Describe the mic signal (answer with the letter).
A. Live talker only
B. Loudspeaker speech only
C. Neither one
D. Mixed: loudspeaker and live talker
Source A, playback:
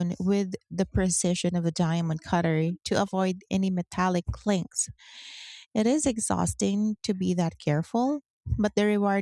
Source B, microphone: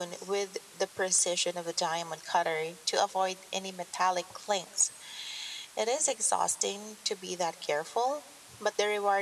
B